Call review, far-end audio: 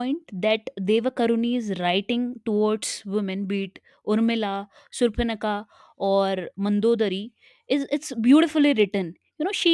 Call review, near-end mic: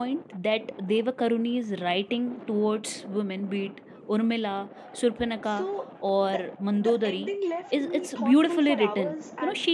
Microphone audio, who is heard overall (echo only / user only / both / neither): both